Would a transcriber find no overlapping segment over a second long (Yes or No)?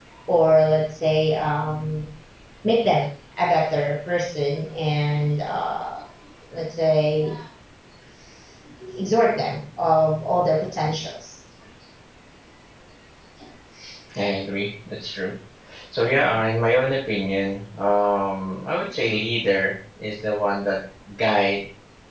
Yes